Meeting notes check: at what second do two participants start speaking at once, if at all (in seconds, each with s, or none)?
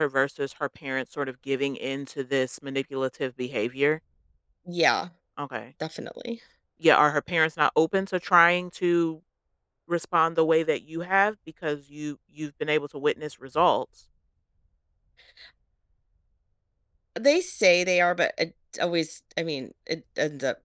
none